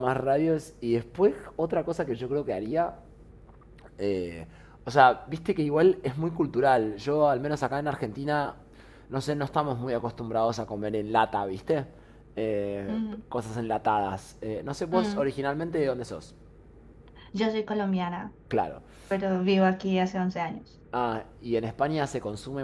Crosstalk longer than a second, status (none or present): none